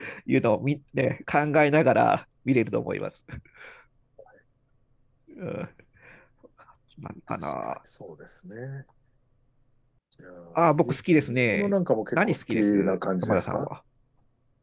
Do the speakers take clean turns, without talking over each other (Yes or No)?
No